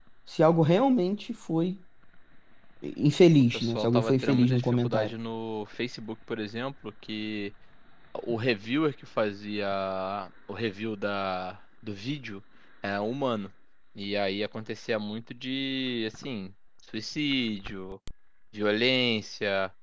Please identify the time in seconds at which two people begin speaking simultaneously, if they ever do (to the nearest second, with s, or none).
4 s